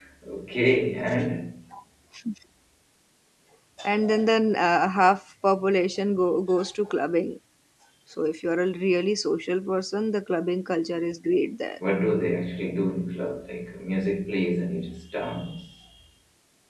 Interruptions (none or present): none